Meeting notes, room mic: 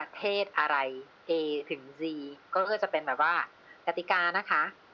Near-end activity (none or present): none